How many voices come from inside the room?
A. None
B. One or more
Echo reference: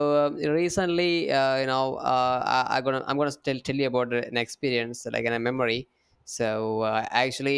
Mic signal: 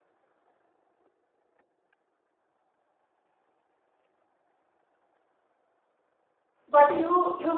B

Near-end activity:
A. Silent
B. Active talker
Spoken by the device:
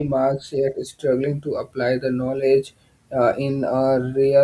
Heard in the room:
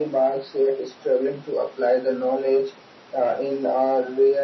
A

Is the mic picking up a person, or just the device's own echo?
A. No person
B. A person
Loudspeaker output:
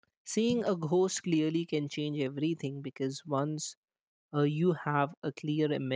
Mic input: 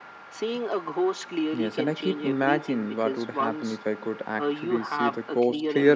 B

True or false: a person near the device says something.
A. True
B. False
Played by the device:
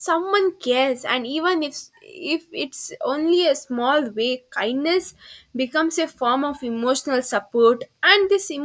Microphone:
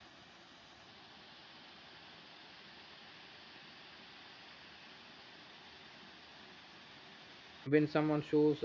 A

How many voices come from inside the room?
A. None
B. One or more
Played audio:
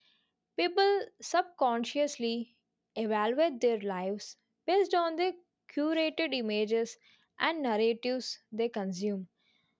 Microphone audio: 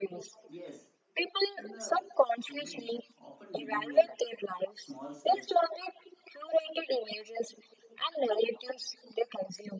B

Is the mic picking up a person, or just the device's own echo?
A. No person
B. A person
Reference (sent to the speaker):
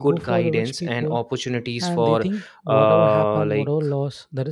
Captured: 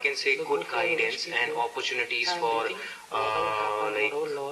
A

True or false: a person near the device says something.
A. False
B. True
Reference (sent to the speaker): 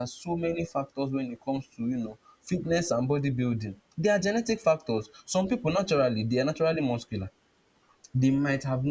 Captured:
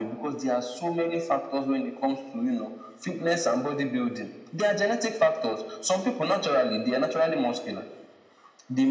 A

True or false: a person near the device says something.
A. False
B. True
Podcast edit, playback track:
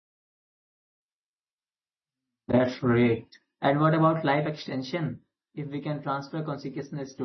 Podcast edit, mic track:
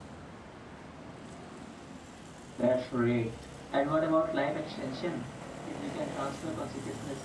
A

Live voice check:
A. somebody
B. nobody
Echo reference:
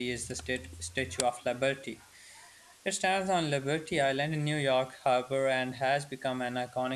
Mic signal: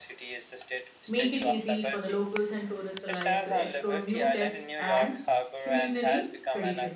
A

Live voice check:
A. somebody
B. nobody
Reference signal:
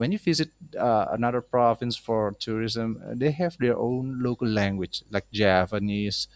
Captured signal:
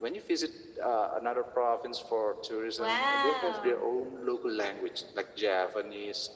A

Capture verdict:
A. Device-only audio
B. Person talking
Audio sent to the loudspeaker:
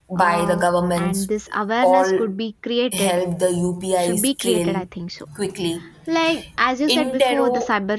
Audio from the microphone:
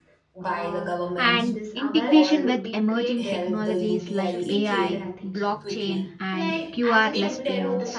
B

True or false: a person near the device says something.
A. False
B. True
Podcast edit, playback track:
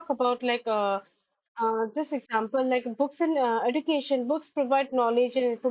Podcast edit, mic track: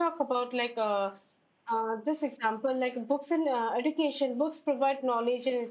A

